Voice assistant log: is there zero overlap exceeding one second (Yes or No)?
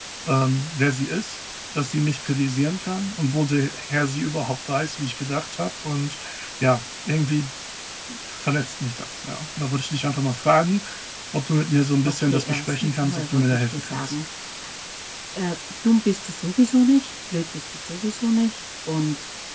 No